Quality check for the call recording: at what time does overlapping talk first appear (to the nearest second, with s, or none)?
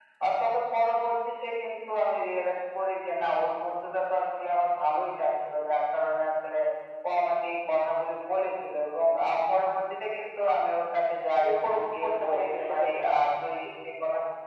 11 s